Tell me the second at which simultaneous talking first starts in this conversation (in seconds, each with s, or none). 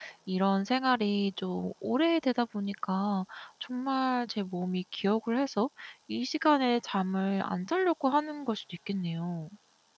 none